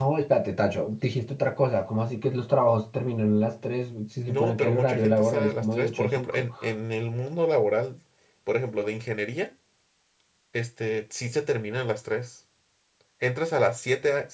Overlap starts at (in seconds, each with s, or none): 4.3 s